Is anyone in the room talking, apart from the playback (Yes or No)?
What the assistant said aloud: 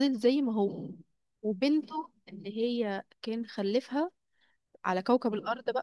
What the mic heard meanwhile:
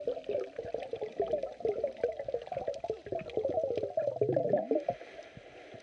No